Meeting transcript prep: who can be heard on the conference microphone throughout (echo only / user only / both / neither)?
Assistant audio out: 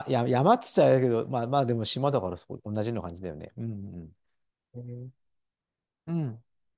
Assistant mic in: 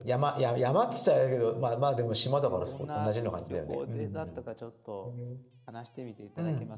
both